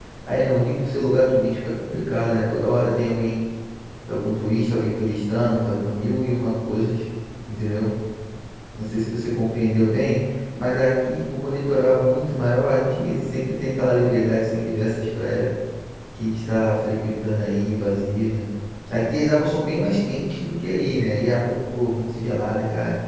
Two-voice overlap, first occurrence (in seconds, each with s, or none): none